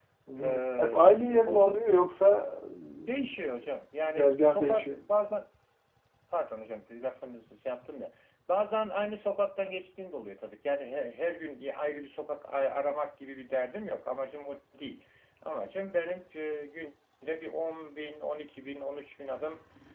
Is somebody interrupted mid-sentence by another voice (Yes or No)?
Yes